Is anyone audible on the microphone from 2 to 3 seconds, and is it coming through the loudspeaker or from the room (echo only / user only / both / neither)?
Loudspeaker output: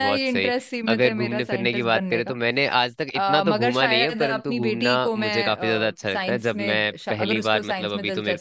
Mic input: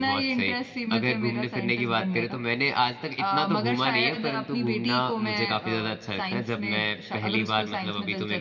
echo only